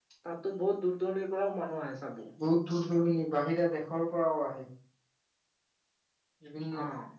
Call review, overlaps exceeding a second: none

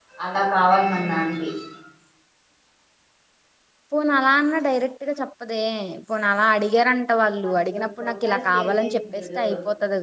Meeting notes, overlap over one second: present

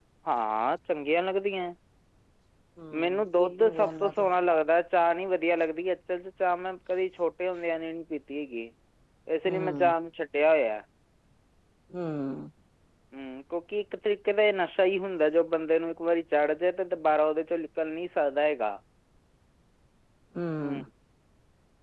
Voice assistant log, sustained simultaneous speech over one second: present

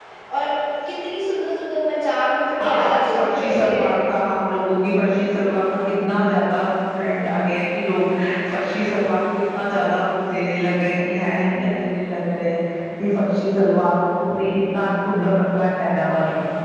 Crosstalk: present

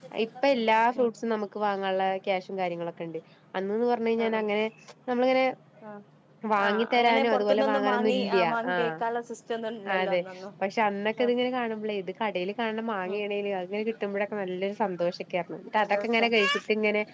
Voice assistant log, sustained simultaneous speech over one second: present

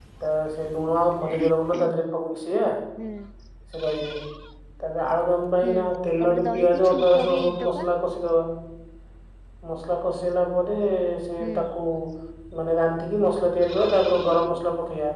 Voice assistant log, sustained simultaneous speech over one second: present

